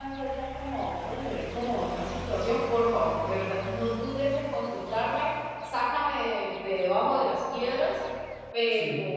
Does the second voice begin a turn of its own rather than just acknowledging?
No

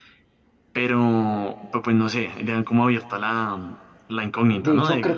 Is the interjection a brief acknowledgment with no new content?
No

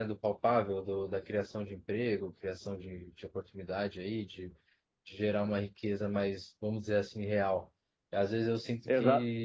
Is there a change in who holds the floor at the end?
No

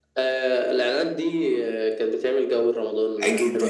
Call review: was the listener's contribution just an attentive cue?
No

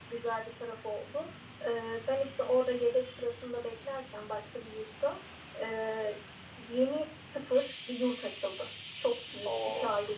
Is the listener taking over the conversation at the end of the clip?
No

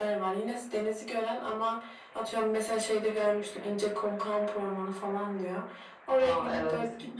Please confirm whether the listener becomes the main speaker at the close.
No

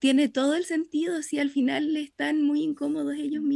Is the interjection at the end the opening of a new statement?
Yes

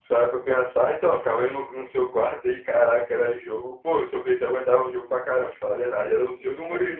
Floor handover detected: Yes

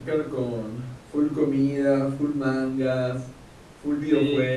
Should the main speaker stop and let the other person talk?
Yes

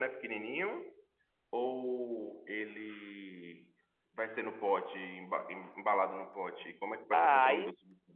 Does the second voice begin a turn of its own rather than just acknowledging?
Yes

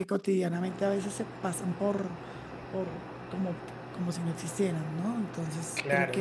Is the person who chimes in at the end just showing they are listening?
No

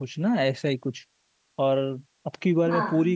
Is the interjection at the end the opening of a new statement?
No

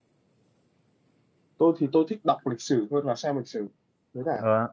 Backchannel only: No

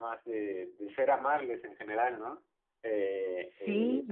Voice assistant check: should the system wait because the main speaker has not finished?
Yes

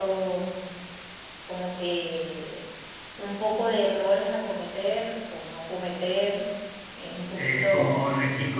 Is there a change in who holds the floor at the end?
Yes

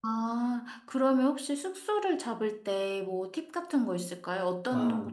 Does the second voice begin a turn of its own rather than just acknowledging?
Yes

